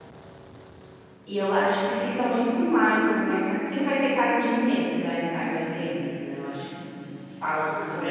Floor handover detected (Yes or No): No